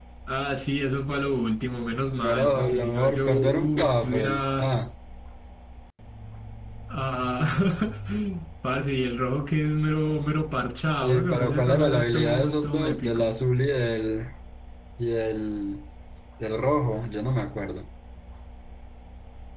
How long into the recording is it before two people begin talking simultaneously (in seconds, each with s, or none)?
2.2 s